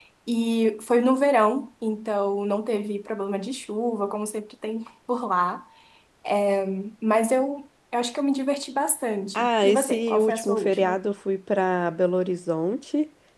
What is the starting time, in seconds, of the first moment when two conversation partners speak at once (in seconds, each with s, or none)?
9.3 s